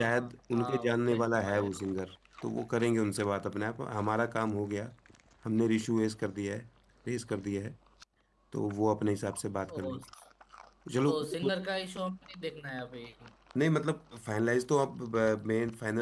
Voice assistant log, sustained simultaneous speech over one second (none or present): present